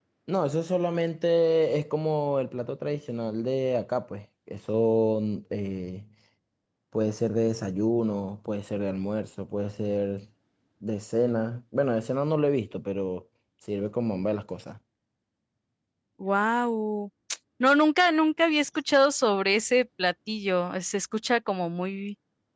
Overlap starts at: none

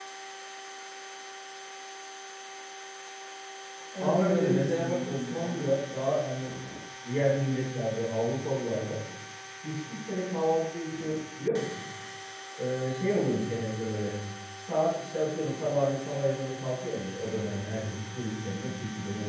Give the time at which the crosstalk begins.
4.0 s

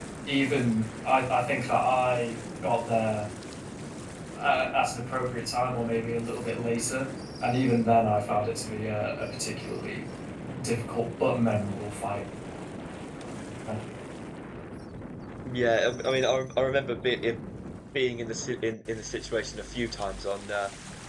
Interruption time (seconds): none

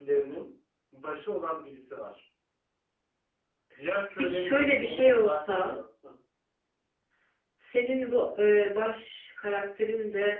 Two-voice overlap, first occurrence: 4.2 s

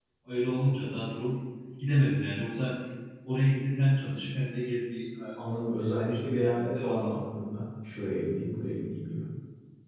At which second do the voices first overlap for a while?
5.4 s

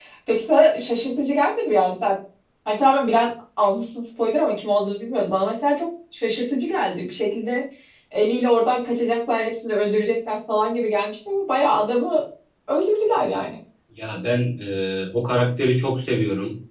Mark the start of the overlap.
none

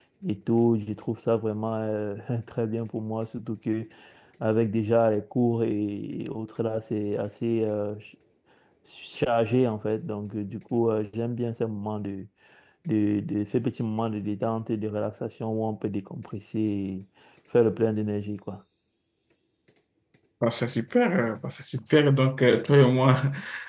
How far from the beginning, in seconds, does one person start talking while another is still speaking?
none

